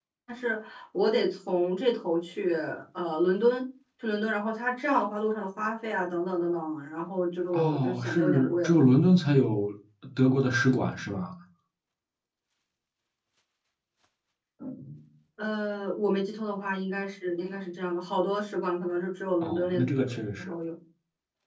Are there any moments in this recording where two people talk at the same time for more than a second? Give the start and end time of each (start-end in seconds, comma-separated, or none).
7.5-8.8